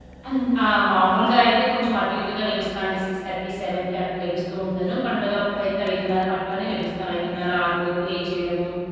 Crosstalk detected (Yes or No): No